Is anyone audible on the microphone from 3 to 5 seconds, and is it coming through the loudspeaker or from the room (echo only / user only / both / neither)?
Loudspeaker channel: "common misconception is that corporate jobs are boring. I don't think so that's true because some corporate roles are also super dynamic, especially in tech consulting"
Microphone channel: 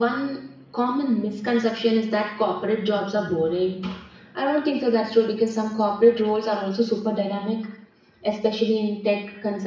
echo only